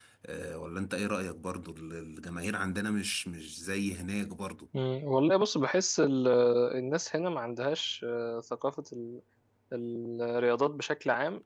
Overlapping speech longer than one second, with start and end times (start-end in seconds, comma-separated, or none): none